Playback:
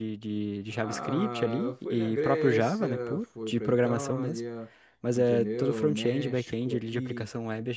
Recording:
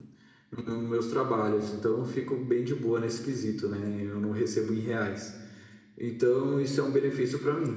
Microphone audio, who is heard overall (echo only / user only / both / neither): user only